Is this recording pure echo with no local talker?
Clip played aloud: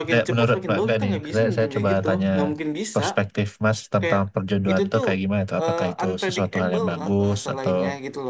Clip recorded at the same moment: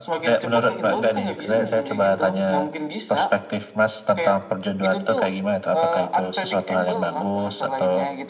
No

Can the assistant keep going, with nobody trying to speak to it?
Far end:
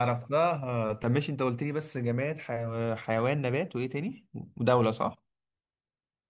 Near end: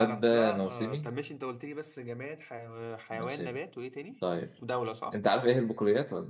No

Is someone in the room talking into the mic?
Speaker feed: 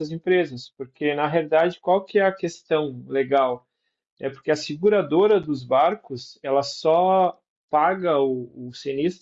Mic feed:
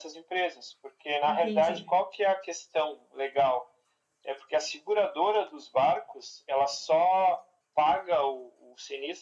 Yes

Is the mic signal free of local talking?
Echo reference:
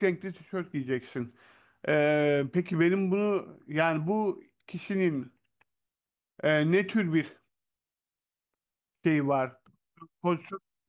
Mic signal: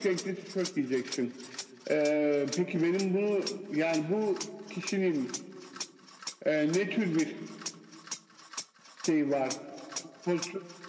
Yes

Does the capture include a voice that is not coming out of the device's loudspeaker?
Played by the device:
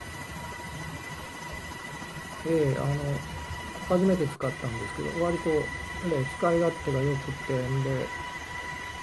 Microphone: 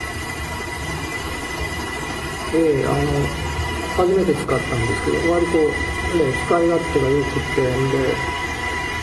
No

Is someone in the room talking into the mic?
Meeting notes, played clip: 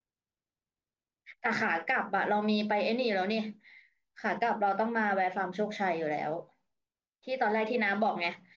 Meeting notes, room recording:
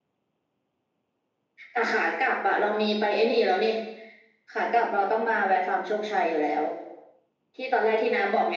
No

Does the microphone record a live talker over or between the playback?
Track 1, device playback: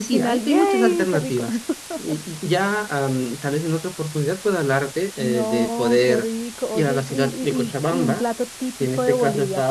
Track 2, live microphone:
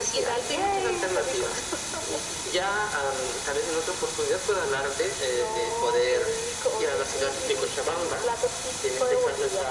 No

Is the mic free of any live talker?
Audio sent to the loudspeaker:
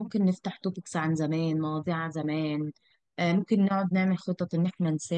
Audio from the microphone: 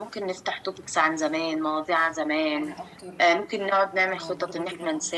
No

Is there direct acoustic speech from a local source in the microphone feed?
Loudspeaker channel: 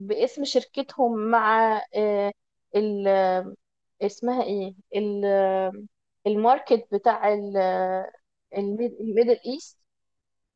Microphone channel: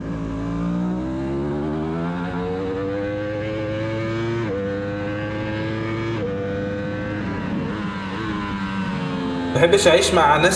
Yes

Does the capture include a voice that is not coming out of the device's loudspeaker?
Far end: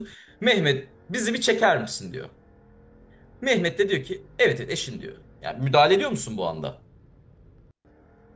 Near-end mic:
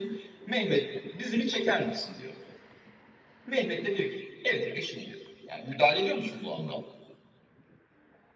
No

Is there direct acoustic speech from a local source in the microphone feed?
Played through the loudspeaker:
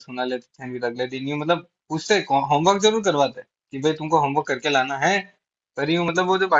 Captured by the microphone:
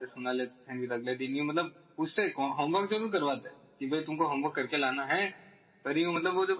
No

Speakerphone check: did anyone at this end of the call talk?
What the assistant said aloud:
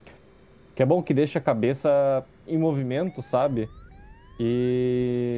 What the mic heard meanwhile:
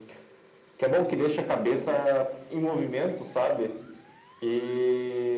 No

